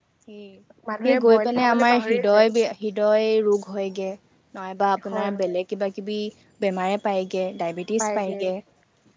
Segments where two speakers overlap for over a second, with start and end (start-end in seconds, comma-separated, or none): 1.1-2.5